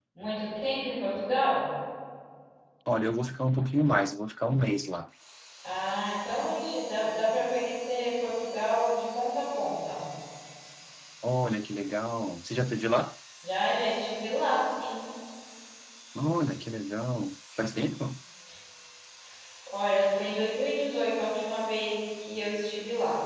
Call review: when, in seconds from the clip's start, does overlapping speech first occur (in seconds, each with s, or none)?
none